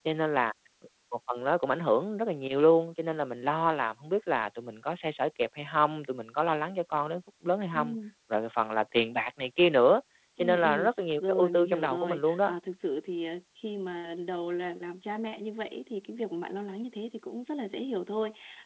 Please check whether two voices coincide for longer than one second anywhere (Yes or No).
Yes